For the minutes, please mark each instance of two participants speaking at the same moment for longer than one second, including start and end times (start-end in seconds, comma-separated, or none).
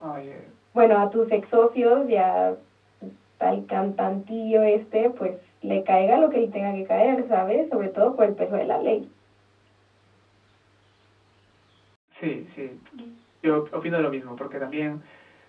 none